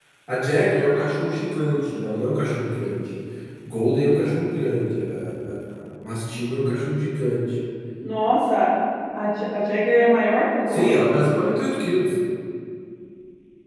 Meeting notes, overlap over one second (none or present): none